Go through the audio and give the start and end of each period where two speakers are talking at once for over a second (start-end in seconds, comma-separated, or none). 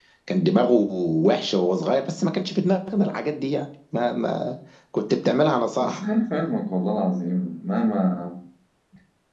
none